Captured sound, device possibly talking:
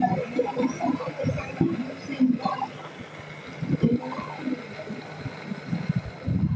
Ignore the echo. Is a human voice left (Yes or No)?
No